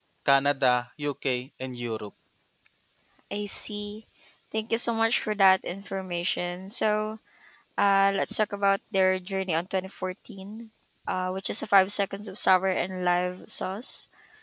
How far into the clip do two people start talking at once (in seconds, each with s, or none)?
none